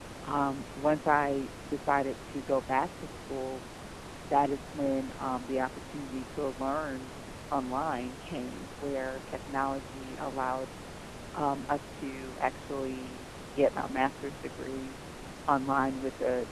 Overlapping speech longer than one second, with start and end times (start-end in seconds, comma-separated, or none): none